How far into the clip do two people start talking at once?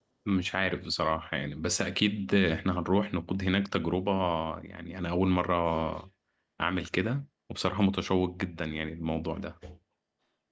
none

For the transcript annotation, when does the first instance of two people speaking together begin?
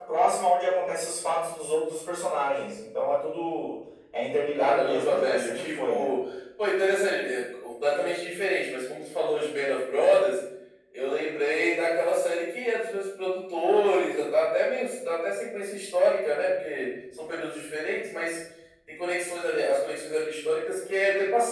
5 s

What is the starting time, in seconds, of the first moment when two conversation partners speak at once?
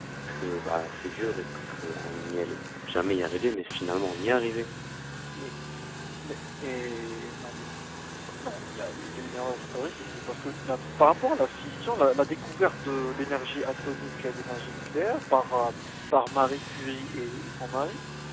none

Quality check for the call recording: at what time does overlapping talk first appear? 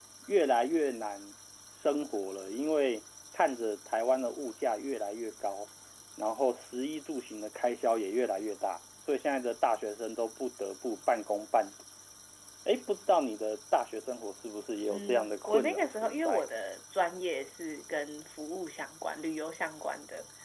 15 s

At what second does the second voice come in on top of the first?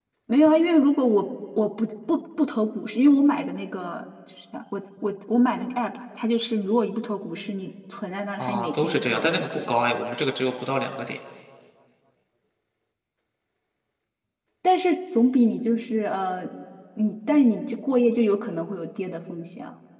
8 s

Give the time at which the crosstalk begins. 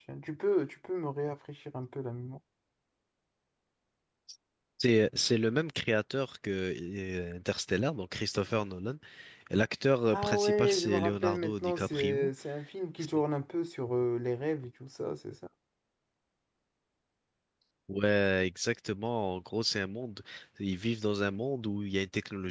10 s

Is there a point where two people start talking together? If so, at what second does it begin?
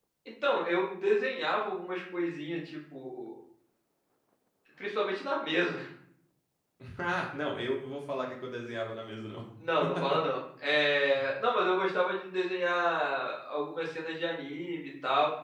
none

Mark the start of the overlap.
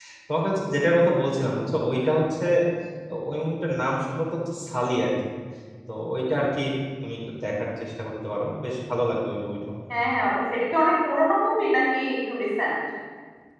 none

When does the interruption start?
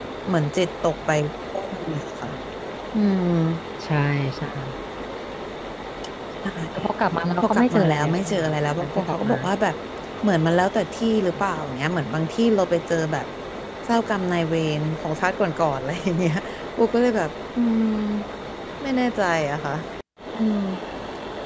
7 s

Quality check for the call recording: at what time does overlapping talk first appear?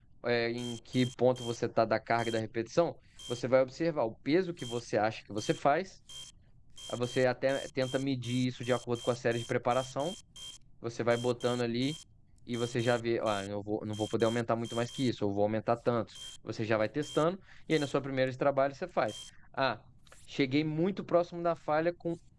none

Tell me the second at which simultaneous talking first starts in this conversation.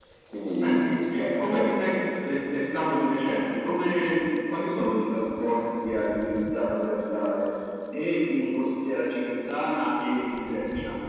1 s

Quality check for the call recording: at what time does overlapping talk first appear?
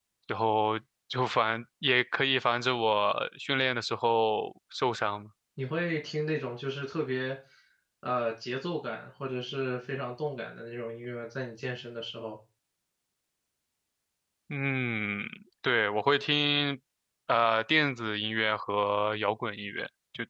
none

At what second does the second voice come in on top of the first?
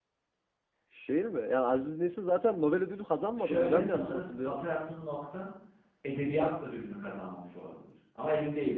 3 s

